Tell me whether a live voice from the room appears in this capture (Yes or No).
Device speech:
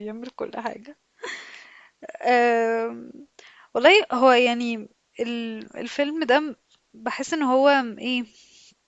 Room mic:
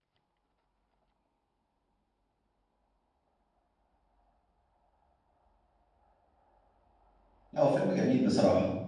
Yes